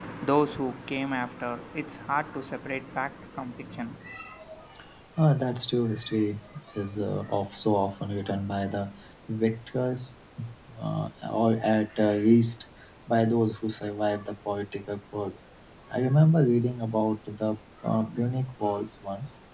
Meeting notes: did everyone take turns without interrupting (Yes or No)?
Yes